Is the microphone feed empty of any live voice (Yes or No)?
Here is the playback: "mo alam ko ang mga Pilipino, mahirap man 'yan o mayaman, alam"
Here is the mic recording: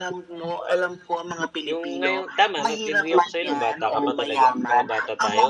No